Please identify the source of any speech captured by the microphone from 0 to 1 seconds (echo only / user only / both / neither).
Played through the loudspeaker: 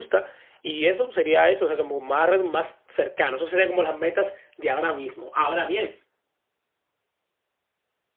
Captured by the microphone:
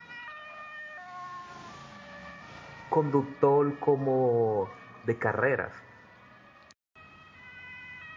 neither